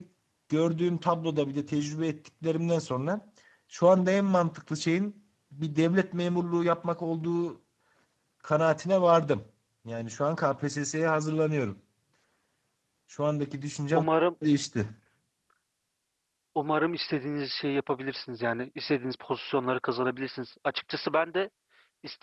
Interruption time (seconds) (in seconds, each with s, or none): none